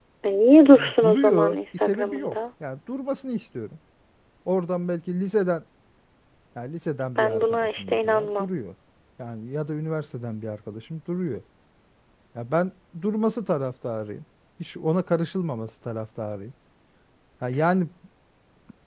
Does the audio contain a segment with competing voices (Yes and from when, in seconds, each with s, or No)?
Yes, from 0.7 s